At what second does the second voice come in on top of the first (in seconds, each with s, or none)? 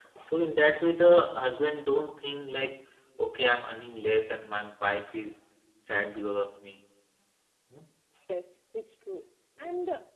none